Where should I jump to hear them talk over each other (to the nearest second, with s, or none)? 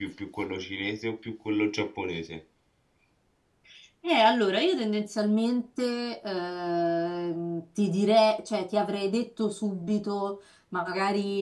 none